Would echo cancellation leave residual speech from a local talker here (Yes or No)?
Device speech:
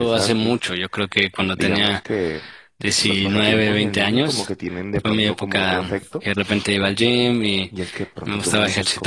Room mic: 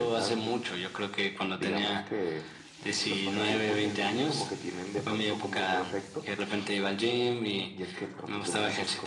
No